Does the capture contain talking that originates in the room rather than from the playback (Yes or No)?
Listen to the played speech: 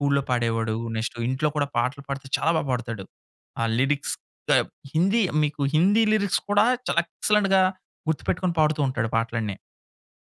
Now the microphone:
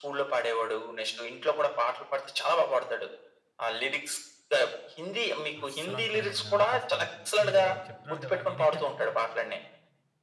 Yes